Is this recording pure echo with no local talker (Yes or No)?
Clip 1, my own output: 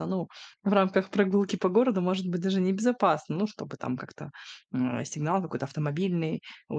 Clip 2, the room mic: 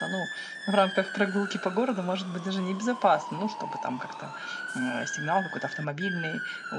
Yes